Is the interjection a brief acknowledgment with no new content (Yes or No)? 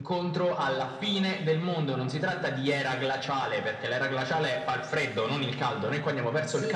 No